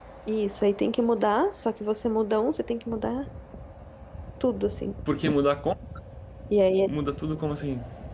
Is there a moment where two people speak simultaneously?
No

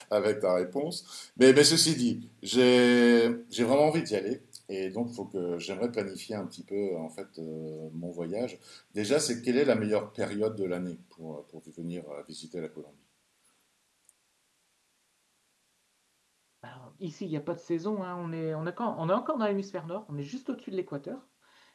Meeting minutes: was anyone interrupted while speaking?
No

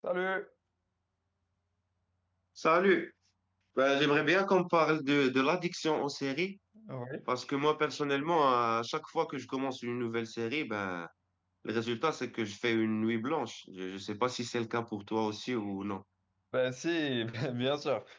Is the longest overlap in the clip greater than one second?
No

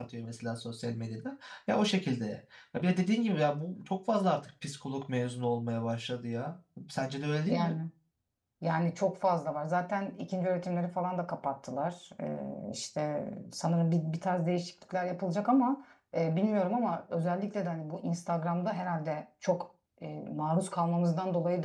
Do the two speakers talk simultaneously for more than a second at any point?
No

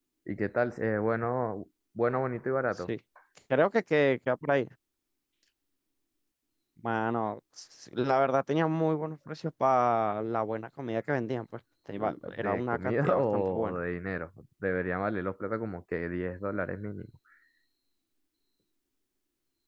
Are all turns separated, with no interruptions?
No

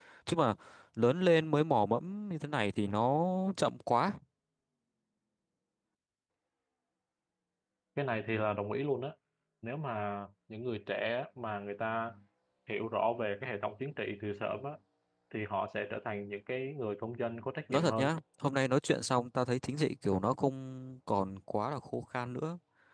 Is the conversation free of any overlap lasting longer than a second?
Yes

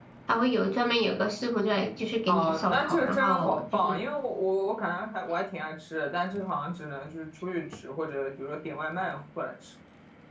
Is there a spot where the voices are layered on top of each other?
Yes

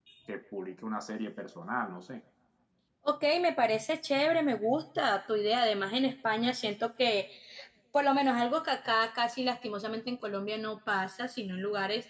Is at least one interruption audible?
No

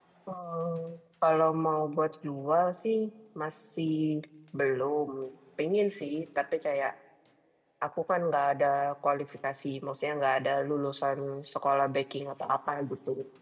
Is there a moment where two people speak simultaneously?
No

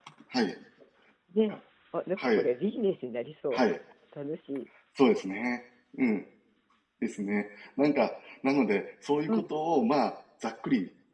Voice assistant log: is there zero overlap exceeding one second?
Yes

